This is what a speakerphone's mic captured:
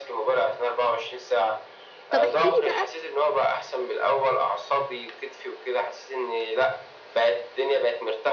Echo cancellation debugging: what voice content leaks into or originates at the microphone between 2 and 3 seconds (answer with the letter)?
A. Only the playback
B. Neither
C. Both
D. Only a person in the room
C